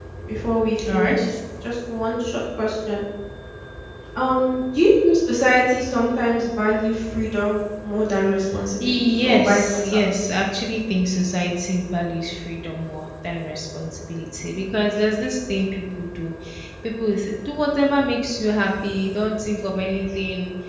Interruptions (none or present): present